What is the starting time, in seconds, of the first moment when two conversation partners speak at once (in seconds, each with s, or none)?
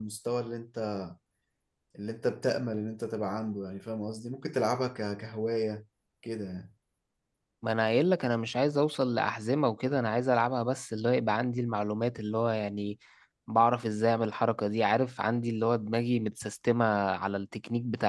none